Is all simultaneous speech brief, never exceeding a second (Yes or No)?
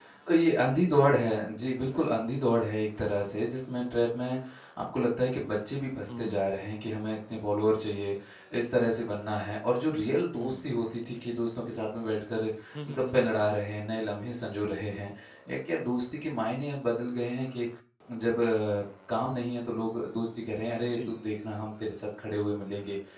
Yes